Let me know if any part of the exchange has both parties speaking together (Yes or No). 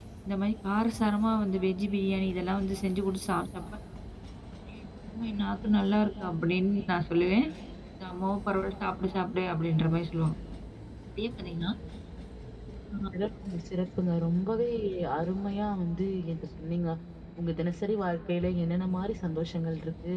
No